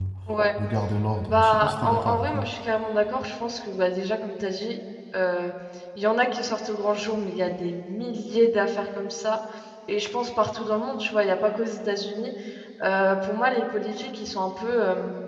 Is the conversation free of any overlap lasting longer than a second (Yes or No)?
No